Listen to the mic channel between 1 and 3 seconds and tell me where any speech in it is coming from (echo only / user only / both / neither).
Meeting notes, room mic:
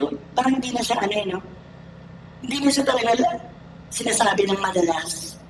echo only